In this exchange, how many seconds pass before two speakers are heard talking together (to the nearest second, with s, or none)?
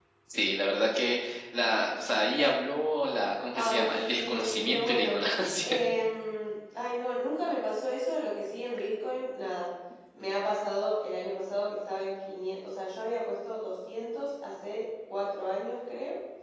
4 s